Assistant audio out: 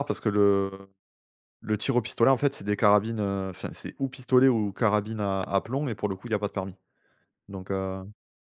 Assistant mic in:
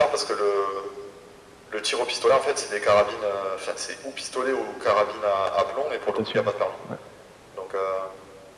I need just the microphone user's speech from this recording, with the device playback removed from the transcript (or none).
Natation, ouais.